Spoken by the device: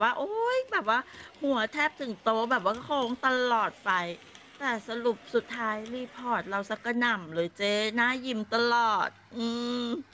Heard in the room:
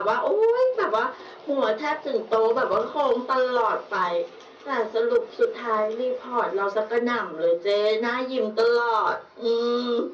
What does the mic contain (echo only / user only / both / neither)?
echo only